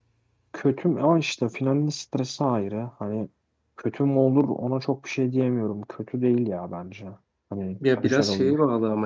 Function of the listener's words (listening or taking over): taking over